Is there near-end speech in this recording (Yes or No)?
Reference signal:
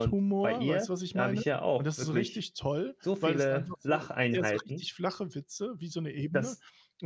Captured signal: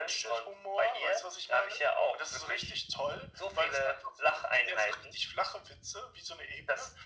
No